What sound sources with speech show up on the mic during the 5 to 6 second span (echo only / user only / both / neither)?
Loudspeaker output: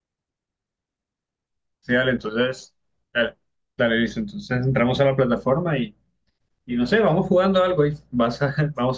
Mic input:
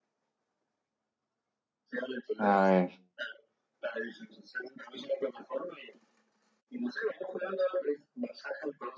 echo only